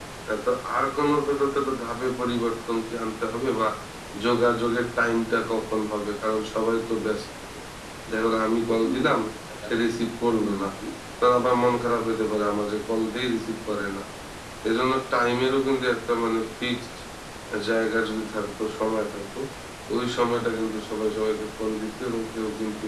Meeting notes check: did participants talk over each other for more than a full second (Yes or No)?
No